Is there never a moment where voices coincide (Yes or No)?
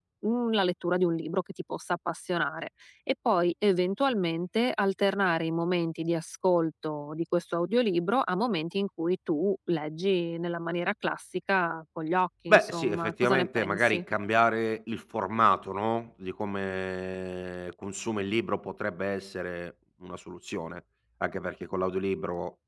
No